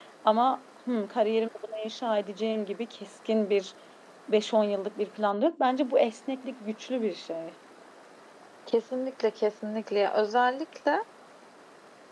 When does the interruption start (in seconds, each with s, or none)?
none